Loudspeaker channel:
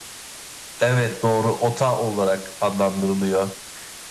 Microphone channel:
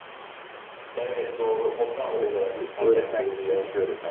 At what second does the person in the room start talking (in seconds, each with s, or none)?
1.9 s